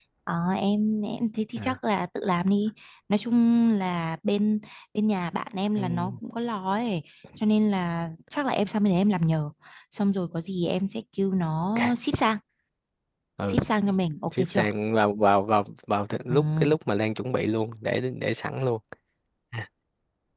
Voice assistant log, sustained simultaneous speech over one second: none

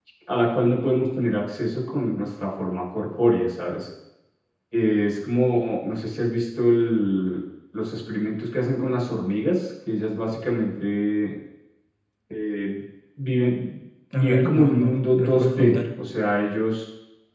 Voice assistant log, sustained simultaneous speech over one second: present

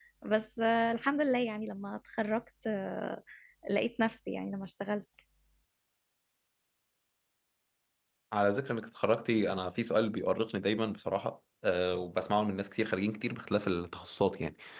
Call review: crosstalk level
none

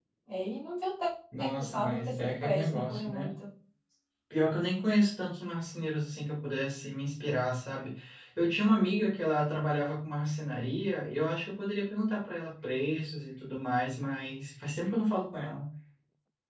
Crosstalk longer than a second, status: present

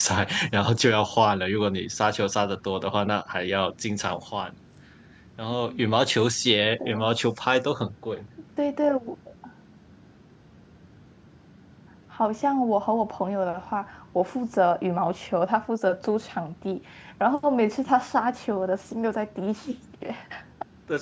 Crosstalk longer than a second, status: none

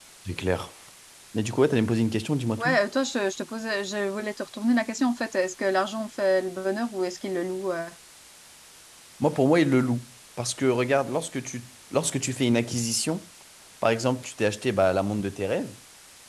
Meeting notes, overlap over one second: none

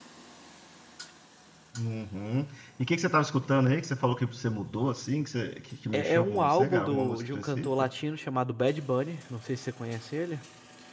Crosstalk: present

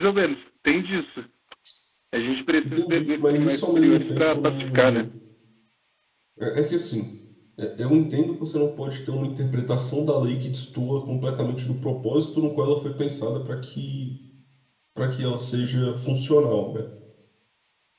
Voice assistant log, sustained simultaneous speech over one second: present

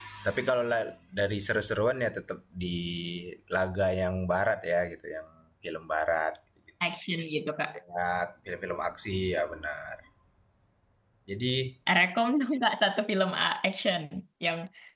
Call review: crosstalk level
none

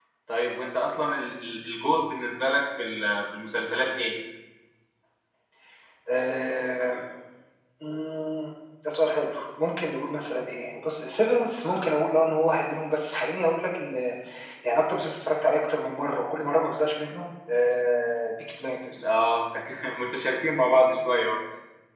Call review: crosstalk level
none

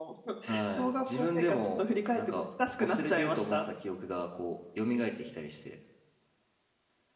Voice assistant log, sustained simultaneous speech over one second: present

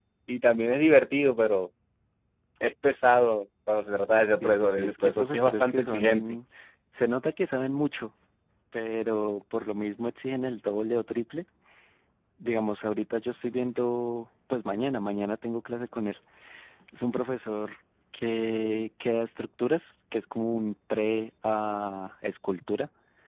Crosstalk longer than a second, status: present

